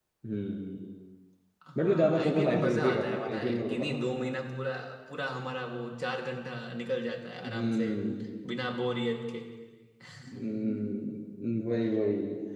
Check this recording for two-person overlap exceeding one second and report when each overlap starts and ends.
1.8-4.1

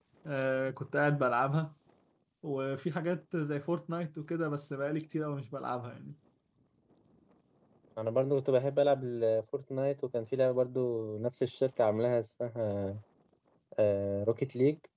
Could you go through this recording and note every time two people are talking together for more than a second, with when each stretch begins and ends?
none

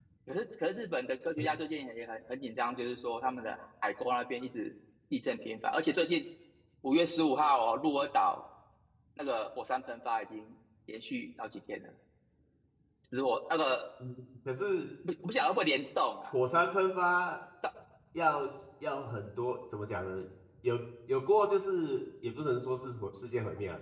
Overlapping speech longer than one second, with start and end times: none

